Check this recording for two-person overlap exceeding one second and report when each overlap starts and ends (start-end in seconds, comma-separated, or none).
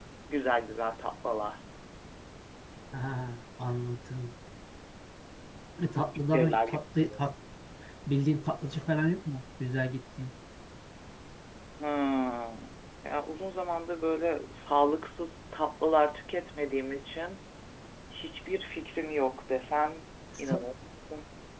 5.9-7.2